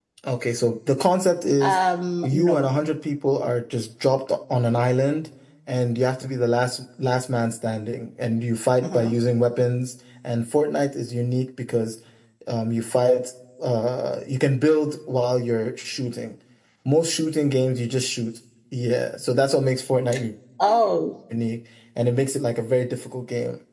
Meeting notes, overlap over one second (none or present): none